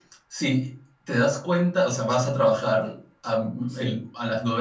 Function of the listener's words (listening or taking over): listening